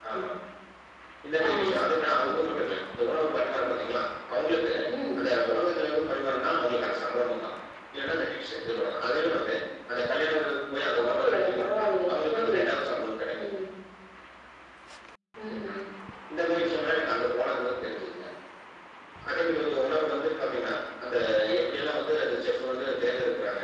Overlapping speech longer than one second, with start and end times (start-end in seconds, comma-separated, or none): 11.0-12.6